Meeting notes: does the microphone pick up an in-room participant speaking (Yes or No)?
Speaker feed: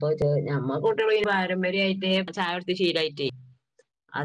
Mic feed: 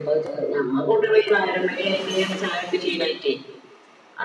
No